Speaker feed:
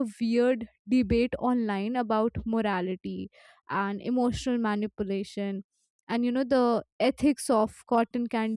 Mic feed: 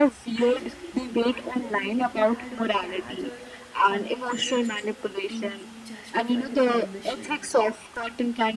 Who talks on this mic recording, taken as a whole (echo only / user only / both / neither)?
both